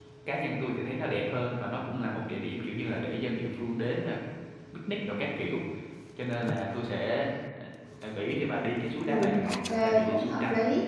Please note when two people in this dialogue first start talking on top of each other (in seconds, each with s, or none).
9.1 s